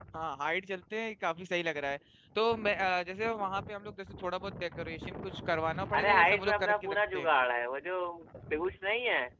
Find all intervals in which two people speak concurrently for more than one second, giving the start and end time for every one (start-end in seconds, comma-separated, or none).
5.9-7.3